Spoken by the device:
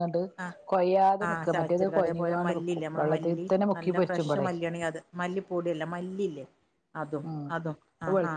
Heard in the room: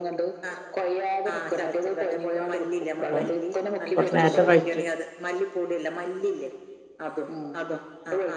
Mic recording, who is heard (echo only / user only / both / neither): both